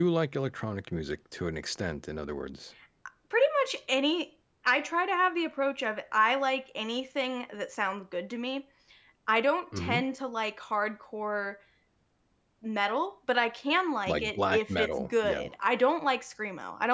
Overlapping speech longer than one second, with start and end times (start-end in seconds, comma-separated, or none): 14.1-15.4